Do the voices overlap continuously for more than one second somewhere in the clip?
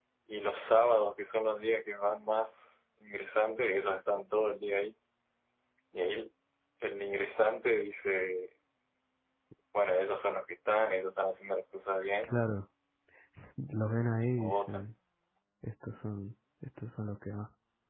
No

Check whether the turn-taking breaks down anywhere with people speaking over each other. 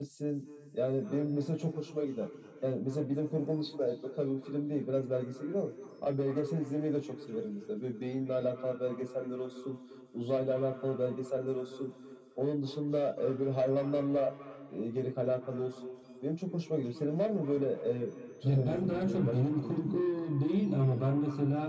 Yes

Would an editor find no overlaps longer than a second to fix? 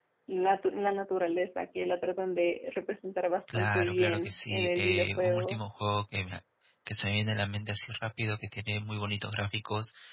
No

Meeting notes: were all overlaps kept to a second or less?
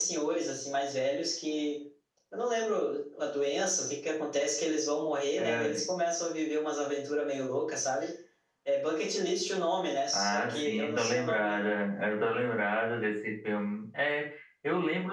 No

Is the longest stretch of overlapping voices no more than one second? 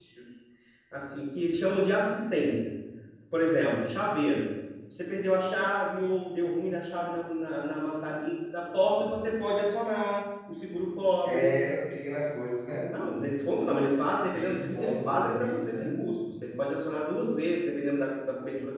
No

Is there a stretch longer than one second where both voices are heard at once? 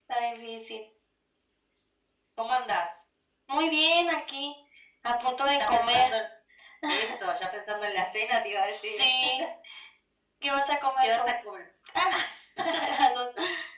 No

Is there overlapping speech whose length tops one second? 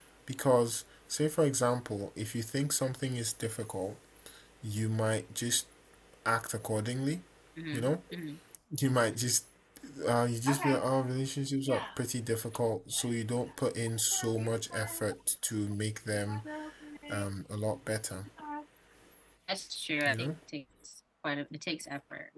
No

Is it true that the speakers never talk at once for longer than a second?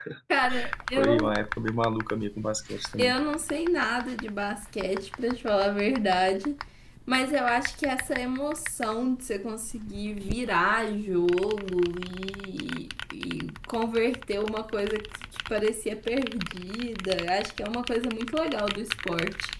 Yes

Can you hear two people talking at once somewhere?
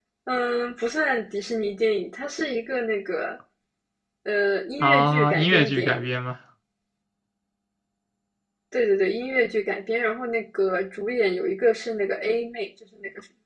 Yes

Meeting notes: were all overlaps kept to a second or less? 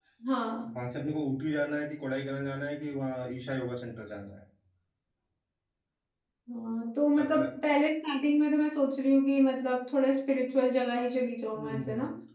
Yes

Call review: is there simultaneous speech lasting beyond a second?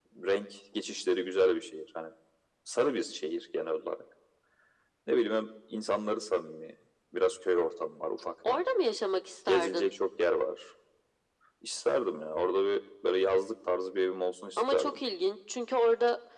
No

